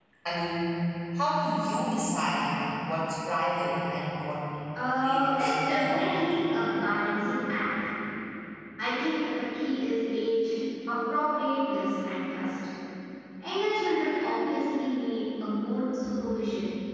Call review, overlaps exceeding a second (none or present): present